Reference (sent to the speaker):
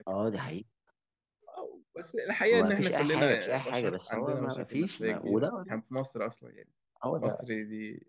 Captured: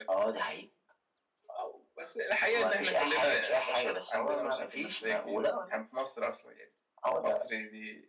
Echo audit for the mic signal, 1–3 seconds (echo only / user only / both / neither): echo only